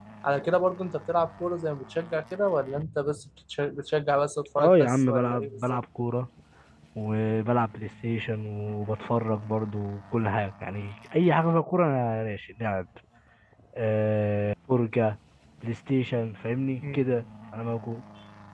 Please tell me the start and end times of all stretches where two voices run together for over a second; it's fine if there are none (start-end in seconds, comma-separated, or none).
4.6-5.8